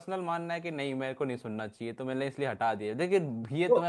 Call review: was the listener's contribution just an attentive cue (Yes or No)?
Yes